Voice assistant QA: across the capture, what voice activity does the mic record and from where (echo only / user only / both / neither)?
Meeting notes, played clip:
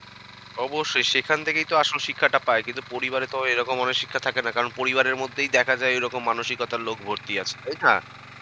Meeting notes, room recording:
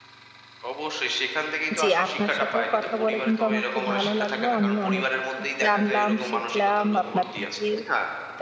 both